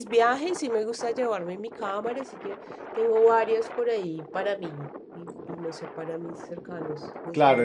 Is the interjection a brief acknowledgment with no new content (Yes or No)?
No